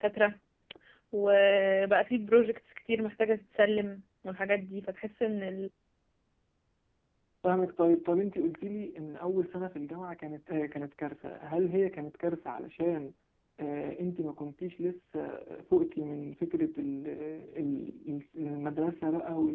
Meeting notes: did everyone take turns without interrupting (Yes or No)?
Yes